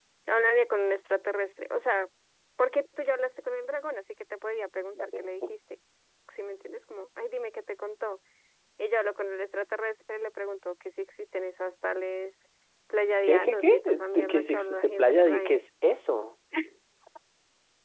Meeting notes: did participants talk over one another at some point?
Yes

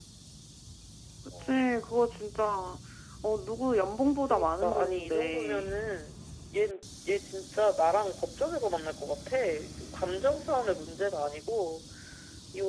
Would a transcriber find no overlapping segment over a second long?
No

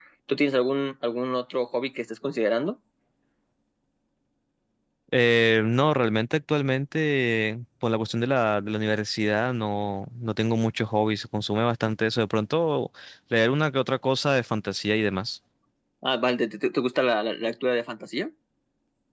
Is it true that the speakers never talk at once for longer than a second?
Yes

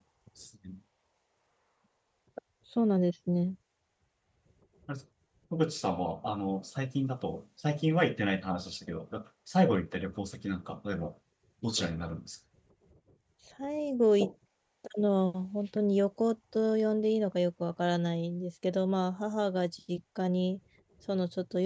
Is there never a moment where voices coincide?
Yes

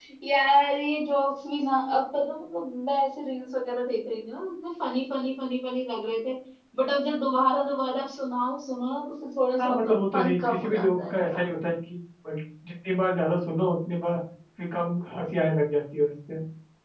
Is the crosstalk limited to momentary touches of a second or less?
No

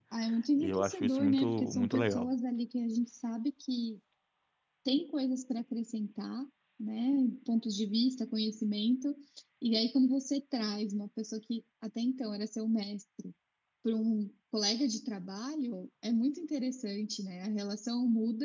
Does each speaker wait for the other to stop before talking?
No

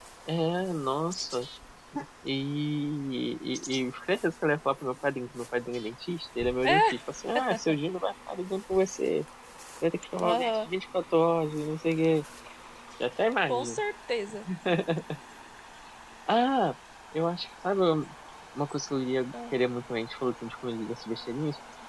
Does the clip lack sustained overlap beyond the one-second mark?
Yes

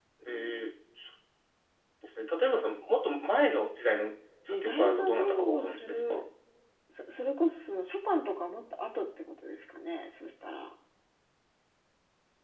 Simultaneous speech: Yes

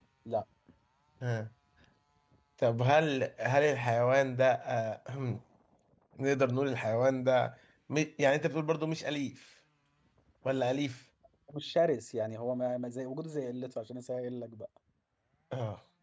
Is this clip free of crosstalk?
Yes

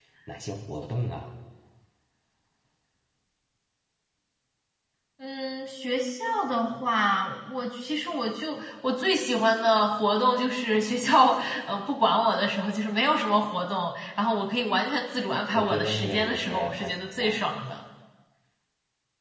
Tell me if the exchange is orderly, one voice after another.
No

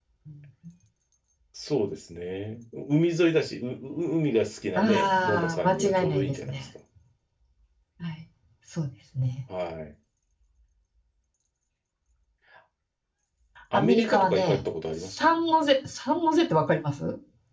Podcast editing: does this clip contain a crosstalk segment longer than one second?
Yes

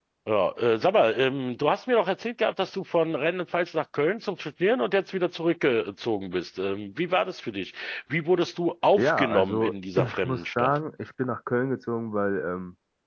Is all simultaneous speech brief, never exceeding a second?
No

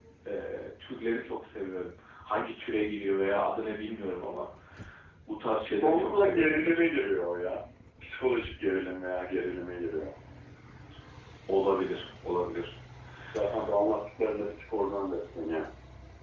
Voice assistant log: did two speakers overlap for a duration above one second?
Yes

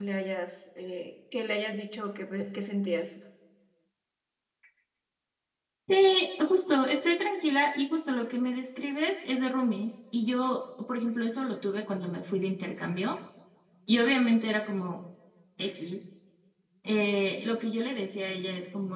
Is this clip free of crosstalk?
Yes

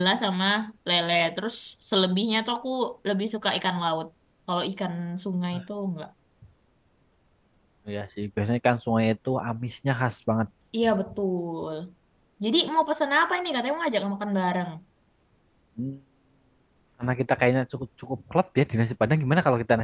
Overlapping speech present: No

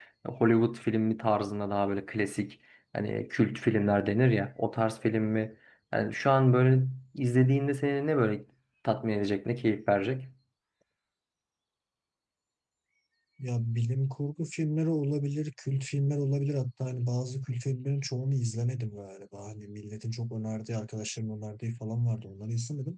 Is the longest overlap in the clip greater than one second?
No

